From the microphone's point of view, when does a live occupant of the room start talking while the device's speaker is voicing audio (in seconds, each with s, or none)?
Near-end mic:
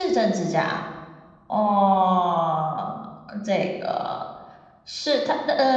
none